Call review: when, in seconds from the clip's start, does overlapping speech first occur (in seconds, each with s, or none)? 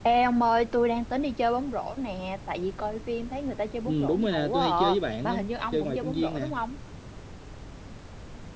3.9 s